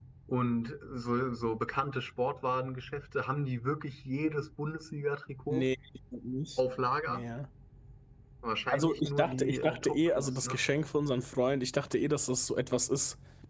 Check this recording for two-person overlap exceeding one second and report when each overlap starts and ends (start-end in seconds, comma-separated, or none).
8.7-10.6